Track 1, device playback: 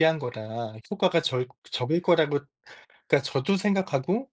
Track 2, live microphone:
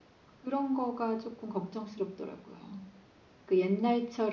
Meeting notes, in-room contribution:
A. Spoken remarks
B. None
A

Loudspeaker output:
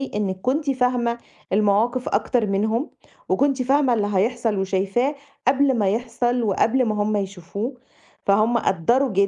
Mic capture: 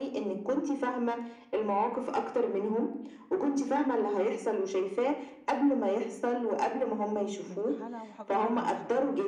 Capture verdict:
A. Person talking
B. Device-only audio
A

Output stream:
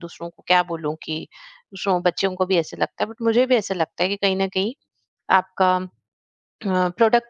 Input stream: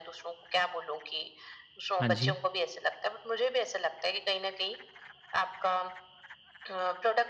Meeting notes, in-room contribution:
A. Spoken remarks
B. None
A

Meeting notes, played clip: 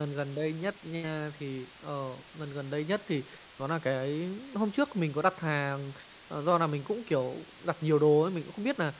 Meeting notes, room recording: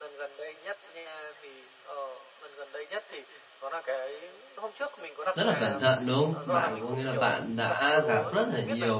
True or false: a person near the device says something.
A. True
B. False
A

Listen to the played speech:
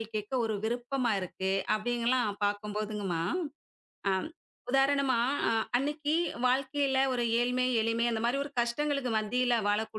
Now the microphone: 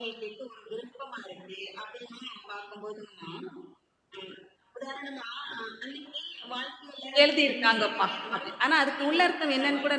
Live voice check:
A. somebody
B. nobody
A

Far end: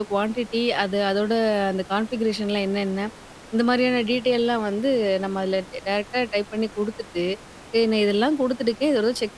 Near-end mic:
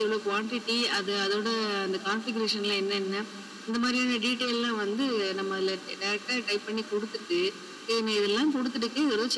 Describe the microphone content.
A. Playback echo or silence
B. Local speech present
A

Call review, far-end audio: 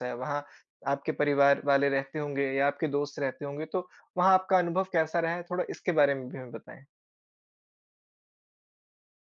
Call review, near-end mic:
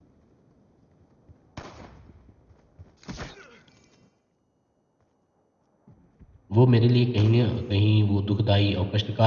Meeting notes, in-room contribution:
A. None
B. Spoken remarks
B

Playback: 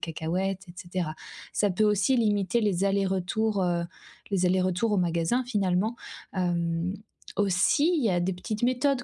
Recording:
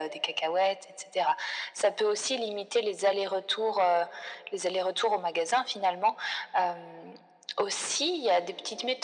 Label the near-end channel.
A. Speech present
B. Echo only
B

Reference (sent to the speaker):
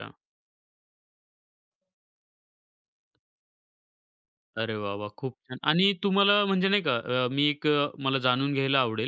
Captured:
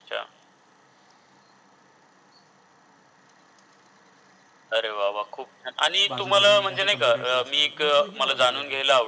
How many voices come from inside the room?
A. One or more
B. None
A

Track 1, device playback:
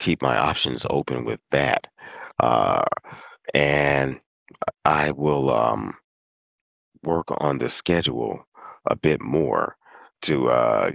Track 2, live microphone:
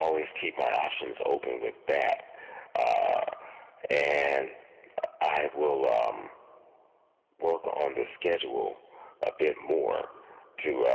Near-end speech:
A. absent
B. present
A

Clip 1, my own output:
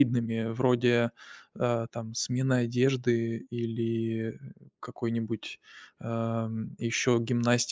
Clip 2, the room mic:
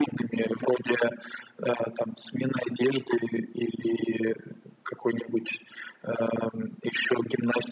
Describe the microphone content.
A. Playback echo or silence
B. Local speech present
A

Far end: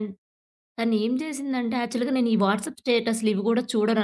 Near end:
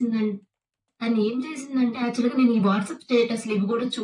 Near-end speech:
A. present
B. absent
B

